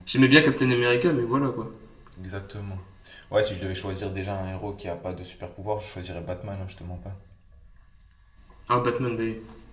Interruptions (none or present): none